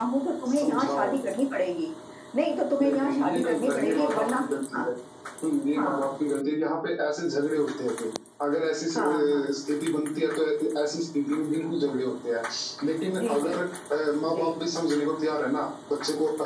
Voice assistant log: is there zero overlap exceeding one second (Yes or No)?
No